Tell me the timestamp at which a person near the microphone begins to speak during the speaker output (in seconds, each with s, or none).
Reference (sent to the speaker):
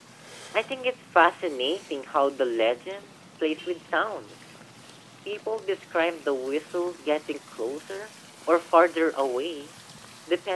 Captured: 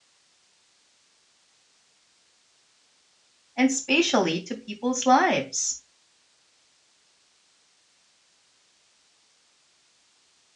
3.5 s